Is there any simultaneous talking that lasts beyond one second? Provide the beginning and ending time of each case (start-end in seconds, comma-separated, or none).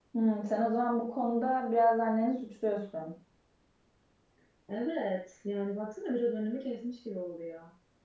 none